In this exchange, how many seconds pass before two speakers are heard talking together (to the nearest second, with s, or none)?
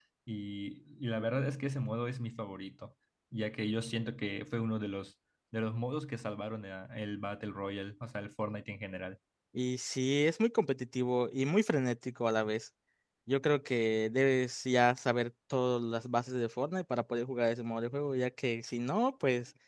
none